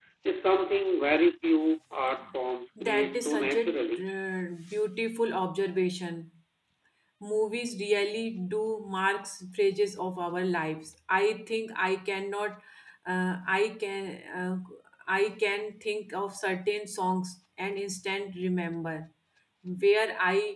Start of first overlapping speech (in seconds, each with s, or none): 2.8 s